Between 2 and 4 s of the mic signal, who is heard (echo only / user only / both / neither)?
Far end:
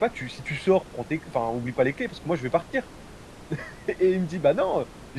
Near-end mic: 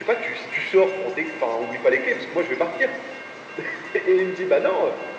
echo only